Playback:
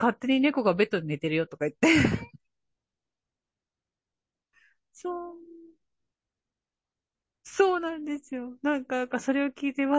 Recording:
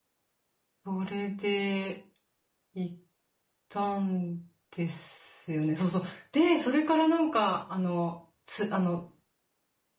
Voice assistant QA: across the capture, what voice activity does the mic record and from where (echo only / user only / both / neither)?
user only